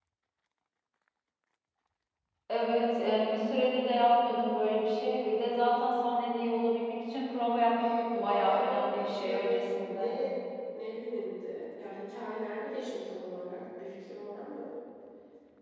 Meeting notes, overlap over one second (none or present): present